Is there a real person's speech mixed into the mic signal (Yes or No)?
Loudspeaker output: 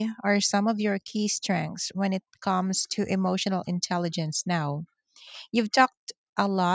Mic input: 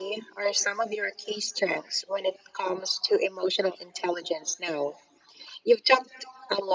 No